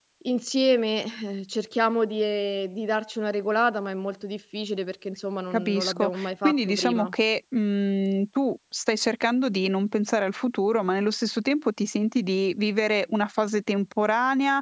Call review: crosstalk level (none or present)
present